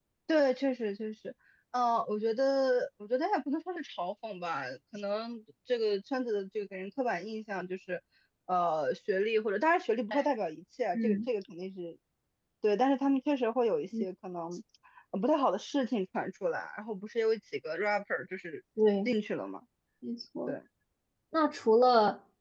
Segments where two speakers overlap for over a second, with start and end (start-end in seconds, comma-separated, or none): none